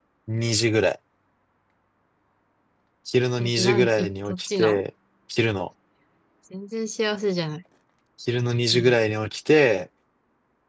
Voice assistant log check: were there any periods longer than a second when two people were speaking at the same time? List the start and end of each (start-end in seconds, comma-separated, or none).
3.4-4.8